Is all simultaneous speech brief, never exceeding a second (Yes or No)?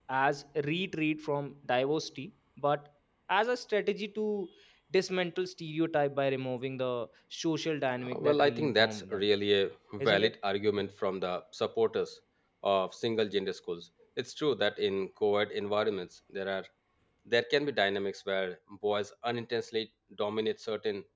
No